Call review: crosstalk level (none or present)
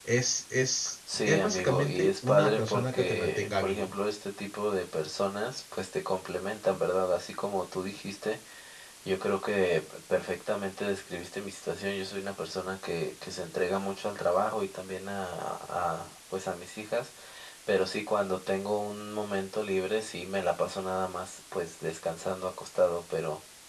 present